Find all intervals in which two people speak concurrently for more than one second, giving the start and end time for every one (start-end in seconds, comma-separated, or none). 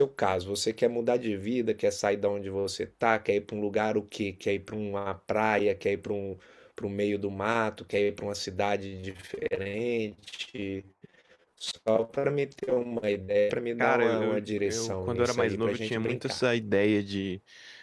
13.8-16.4